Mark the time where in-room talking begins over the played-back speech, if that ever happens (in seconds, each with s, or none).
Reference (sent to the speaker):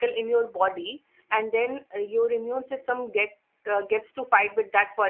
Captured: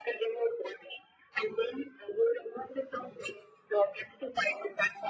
none